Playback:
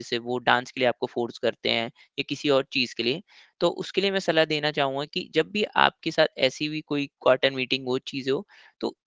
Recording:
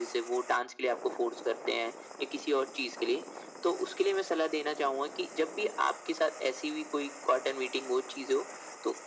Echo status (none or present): present